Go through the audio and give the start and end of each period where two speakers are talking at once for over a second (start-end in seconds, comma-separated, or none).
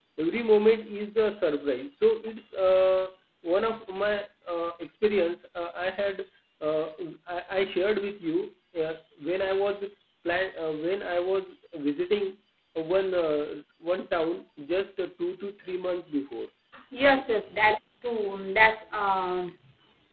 none